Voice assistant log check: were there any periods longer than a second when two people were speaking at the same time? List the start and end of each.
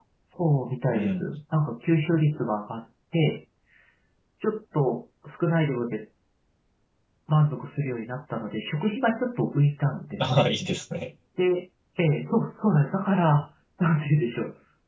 none

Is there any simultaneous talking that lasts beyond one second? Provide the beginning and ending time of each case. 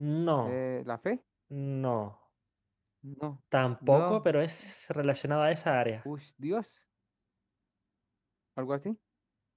none

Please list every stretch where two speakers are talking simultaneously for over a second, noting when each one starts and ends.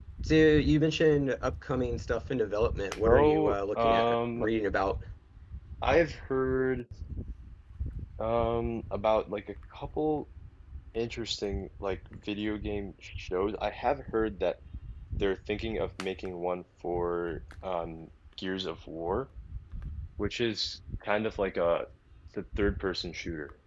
3.0-4.4

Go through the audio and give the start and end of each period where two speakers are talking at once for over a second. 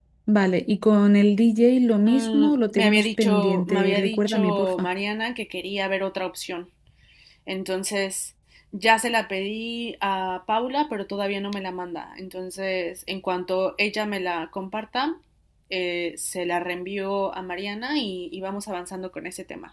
2.0-4.9

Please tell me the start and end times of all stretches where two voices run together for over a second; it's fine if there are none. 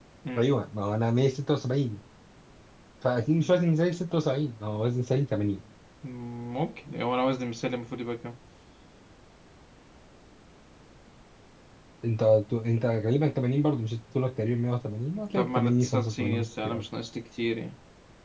15.3-16.8

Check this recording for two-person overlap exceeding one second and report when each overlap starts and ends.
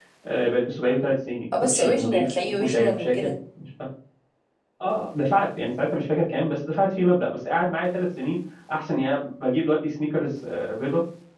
1.6-3.3

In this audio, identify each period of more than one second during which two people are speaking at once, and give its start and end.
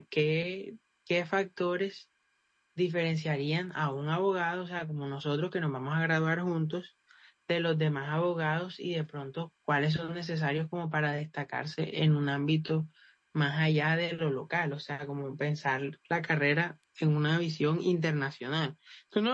none

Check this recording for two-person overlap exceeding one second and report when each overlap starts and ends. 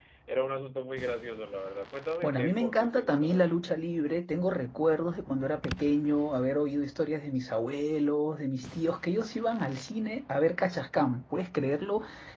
2.2-3.6

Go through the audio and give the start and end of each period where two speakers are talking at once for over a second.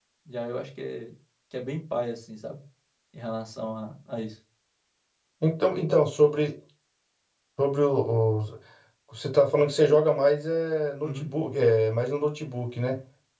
none

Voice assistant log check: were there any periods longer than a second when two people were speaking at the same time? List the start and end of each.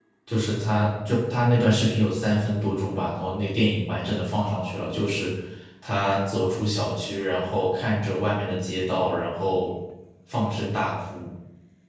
none

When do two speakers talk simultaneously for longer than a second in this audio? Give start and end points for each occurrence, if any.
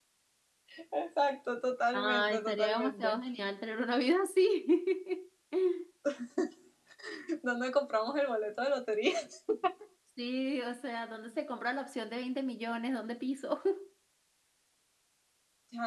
1.9-3.1

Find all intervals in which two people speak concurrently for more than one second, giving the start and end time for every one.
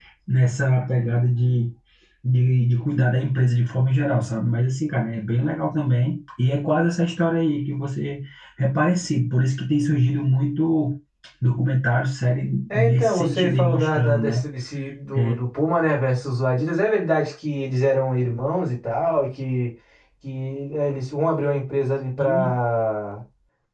12.7-14.2

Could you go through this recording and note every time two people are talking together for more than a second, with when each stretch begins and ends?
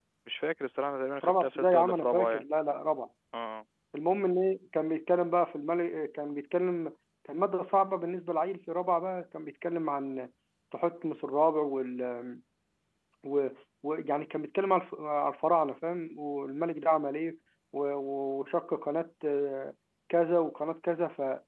1.2-2.4

